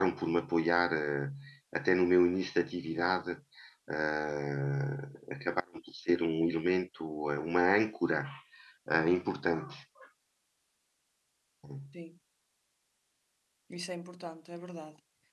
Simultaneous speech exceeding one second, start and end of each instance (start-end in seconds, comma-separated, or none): none